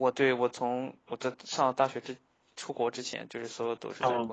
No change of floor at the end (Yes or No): No